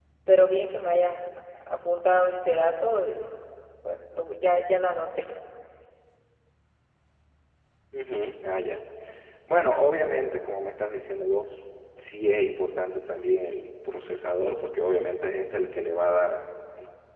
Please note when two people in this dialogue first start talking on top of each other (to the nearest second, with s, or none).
none